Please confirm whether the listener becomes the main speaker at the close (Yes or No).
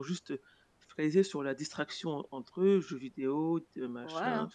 Yes